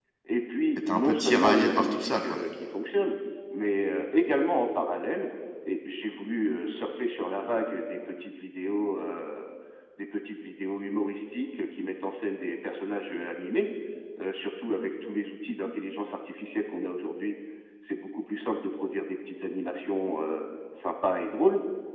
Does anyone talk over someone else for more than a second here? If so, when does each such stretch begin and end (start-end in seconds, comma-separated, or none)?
0.8-2.4